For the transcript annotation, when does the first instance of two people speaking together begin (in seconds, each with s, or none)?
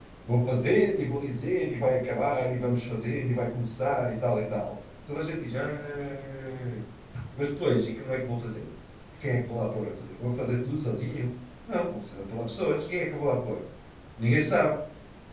none